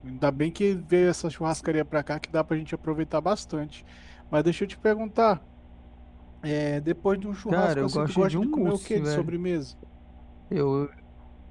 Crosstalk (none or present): present